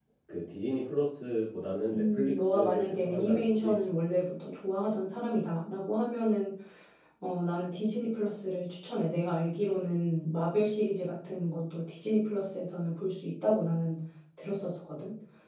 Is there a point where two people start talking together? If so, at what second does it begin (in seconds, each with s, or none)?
1.9 s